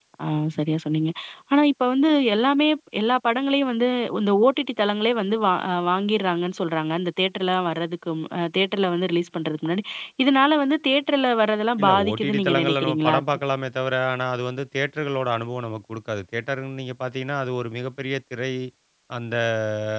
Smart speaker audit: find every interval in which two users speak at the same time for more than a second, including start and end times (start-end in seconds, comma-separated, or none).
11.8-13.2